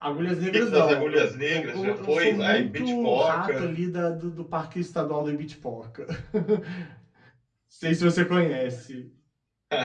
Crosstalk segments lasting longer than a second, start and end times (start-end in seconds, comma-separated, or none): 0.5-3.7